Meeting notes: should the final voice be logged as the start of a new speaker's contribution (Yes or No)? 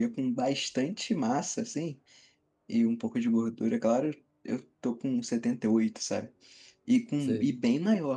No